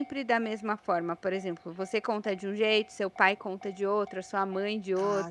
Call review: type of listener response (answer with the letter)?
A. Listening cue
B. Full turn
B